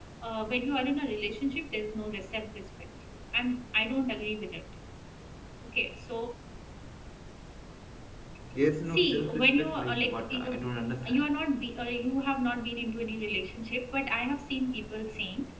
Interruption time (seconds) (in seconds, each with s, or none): 8.9 s